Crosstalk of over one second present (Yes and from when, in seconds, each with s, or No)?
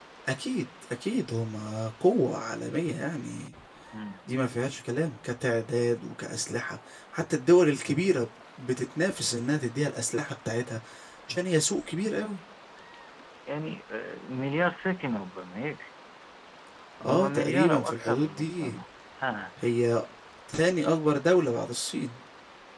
Yes, from 17.1 s